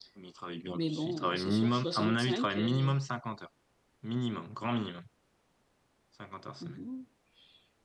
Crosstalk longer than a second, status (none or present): present